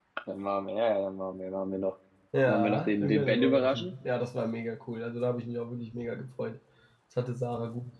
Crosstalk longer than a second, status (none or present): present